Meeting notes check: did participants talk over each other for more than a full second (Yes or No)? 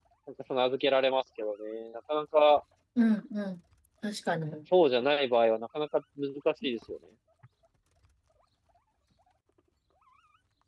No